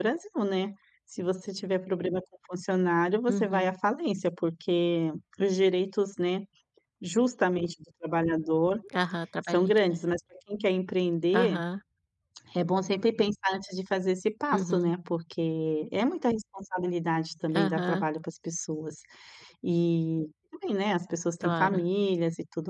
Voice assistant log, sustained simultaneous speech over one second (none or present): none